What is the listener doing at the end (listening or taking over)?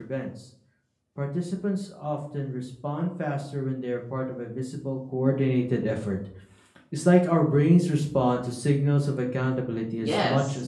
taking over